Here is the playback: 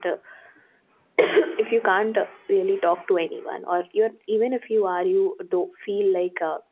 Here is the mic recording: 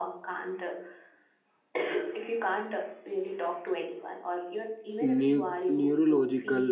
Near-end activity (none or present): present